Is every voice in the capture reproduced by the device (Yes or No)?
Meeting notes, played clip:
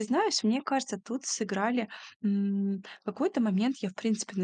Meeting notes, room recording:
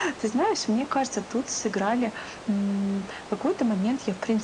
Yes